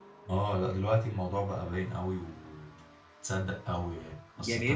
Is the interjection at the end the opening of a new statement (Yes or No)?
No